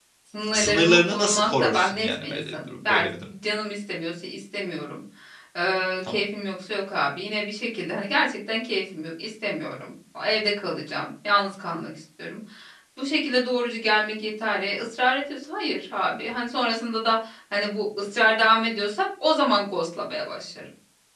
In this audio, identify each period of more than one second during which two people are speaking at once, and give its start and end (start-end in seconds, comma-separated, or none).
0.5-3.3